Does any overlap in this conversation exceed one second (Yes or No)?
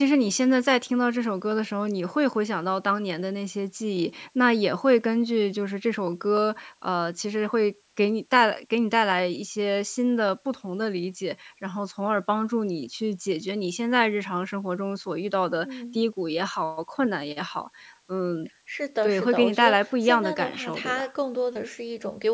Yes